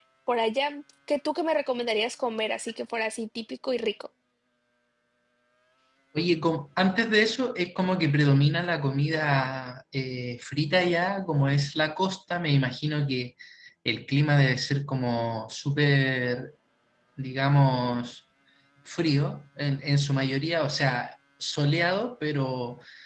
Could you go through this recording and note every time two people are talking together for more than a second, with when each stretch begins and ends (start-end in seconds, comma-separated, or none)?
none